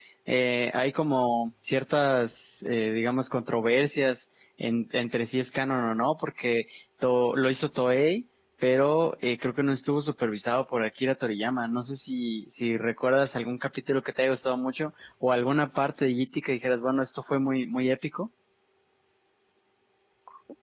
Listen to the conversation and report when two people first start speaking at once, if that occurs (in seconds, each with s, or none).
none